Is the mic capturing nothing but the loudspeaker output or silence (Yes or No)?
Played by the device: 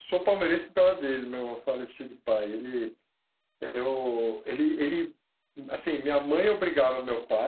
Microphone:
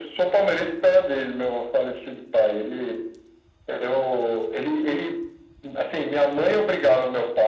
Yes